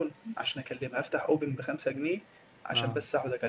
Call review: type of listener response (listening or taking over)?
listening